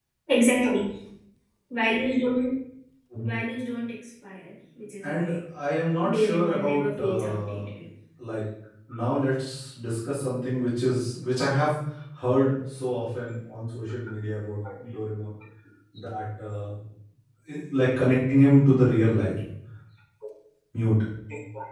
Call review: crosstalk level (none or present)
present